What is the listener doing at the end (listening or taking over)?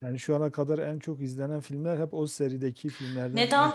taking over